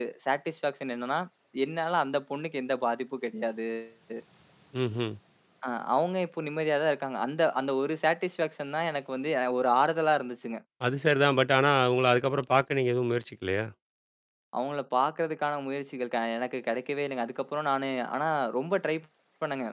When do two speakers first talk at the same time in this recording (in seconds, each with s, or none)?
none